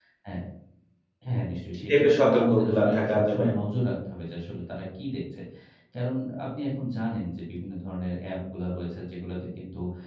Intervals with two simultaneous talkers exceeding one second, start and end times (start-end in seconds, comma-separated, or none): 1.7-3.4